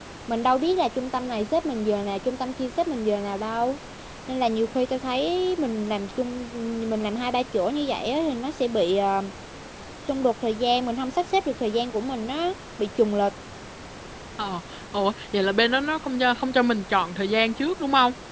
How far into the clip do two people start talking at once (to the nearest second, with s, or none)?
none